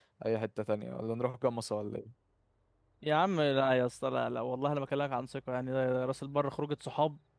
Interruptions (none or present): none